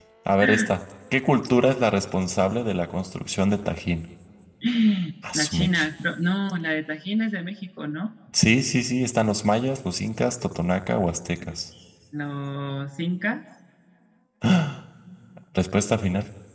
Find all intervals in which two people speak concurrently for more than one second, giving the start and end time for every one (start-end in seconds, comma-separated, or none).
none